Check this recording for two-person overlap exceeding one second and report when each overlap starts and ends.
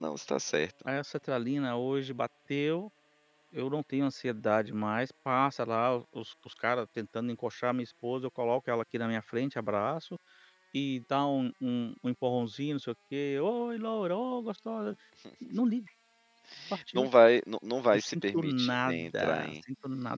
17.9-19.6

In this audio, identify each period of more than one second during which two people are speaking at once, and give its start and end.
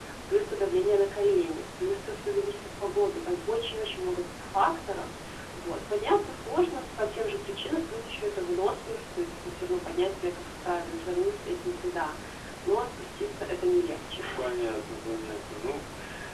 none

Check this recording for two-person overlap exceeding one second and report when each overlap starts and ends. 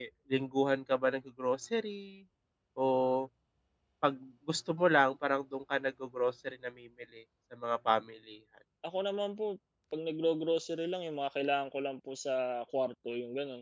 none

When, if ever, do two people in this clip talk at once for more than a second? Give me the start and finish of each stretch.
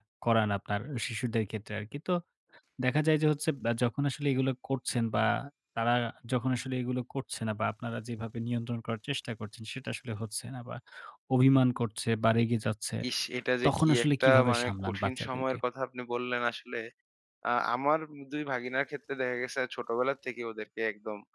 13.7-15.6

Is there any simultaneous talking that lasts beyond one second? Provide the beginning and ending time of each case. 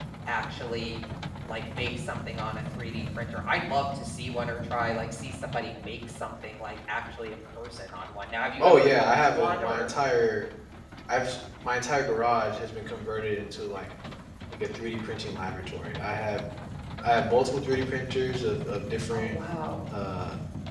8.6-9.9

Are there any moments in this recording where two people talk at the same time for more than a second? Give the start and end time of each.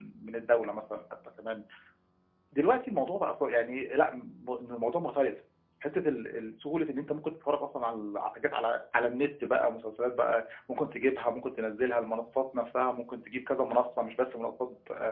none

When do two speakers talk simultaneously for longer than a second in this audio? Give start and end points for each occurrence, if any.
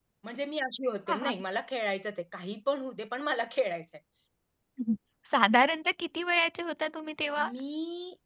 none

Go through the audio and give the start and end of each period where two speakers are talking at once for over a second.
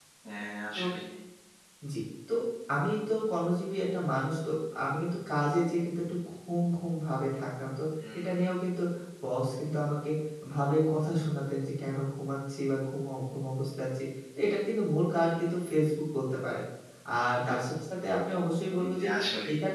none

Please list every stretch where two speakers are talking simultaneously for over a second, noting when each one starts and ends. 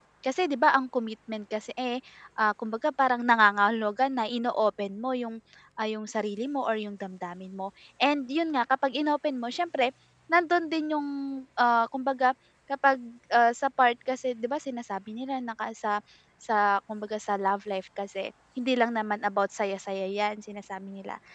none

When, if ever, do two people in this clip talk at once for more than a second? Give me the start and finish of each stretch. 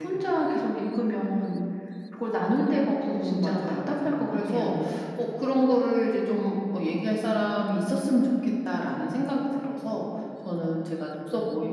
3.1-4.7

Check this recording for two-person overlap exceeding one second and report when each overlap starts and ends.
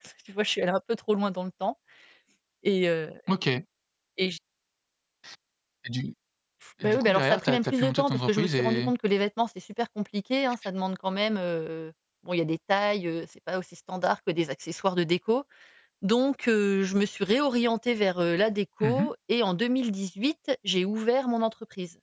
6.8-8.9

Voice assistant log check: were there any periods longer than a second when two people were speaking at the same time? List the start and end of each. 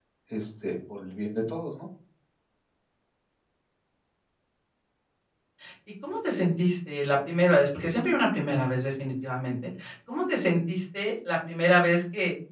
none

